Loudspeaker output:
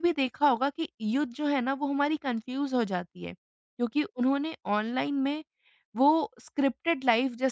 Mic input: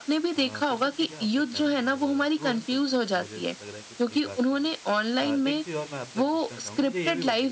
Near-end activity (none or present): present